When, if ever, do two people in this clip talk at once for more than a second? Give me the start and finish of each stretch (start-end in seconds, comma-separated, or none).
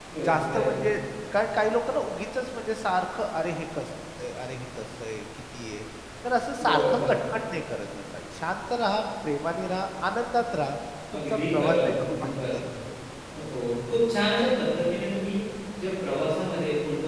11.2-12.6